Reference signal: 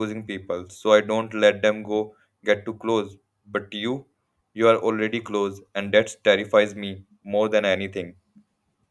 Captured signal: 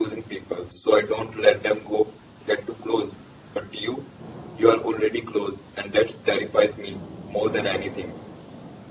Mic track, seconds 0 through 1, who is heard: echo only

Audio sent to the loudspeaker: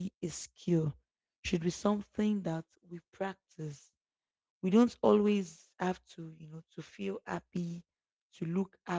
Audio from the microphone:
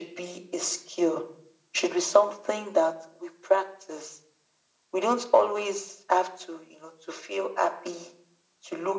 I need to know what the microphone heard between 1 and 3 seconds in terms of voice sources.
echo only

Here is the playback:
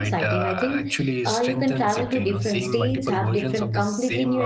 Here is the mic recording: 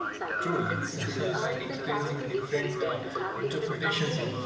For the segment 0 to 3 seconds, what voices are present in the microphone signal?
both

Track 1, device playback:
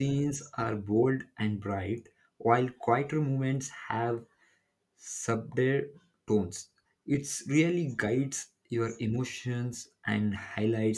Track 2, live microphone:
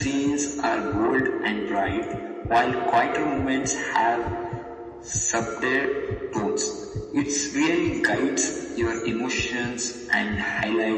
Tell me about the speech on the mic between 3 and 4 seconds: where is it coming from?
echo only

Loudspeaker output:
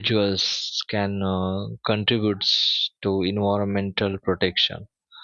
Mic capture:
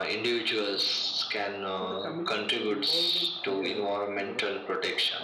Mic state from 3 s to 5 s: both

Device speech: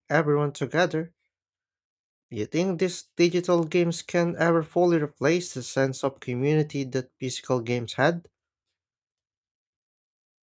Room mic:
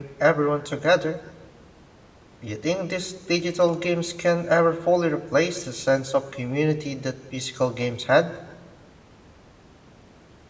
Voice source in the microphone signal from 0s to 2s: echo only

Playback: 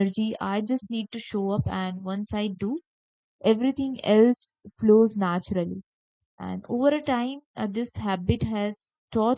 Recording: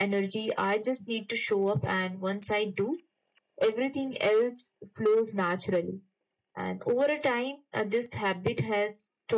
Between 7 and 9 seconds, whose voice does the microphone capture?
echo only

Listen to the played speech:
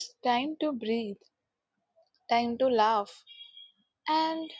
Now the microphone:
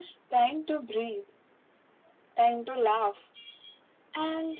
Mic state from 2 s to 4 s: echo only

